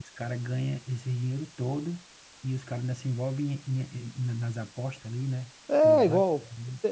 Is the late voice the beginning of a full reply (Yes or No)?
Yes